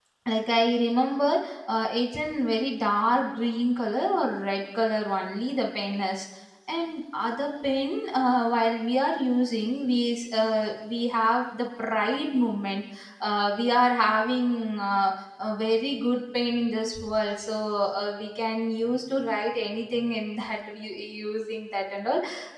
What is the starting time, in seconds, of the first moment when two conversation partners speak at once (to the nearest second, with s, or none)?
none